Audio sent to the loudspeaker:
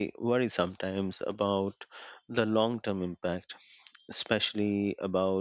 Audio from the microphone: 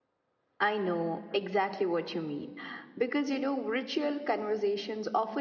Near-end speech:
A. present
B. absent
A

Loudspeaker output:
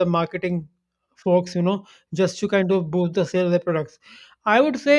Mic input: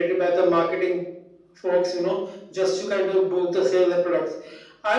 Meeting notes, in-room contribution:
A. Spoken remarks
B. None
B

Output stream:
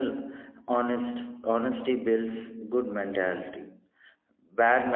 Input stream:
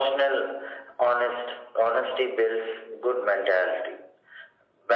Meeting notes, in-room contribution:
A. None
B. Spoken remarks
A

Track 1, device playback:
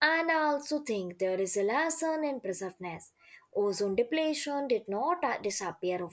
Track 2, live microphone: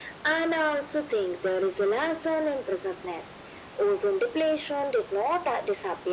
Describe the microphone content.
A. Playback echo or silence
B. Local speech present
A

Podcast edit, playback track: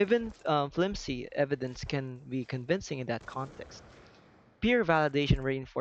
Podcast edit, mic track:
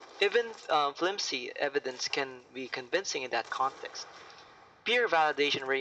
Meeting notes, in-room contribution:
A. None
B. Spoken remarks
A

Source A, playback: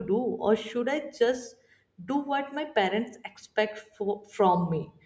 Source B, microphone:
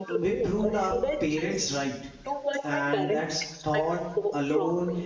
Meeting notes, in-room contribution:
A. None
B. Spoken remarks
B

